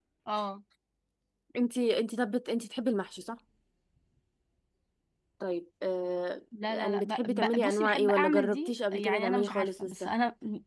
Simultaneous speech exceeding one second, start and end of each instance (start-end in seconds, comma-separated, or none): 6.6-10.1